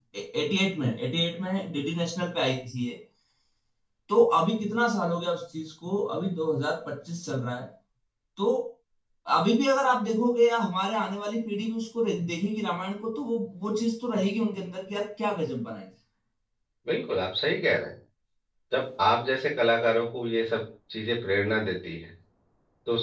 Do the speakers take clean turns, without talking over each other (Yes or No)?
Yes